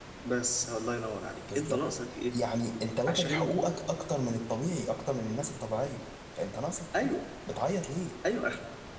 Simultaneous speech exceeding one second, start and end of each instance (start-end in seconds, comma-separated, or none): none